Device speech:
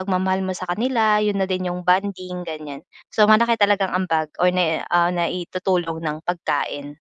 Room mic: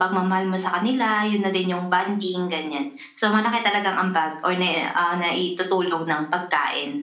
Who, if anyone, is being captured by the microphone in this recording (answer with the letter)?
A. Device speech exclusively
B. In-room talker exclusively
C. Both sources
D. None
A